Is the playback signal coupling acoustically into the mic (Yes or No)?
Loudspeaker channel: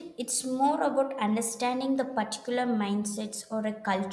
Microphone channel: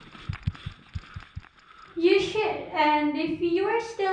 No